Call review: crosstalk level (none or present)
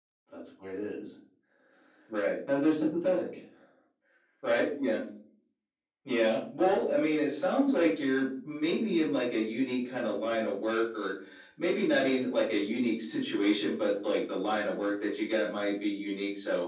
none